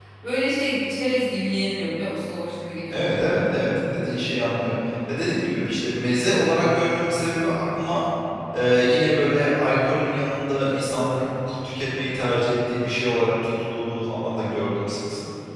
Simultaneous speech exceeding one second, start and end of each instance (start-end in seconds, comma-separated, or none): none